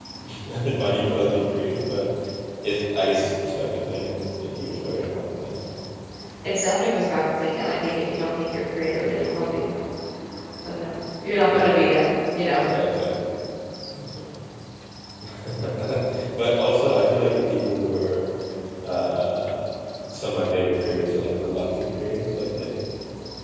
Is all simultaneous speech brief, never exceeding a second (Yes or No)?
Yes